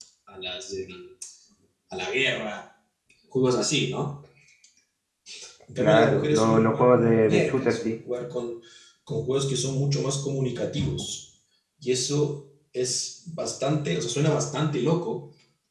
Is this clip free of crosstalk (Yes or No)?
No